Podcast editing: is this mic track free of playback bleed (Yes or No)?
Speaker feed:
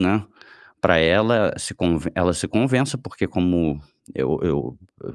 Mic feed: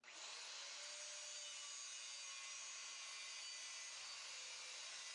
Yes